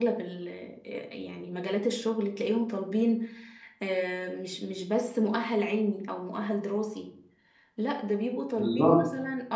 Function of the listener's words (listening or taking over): listening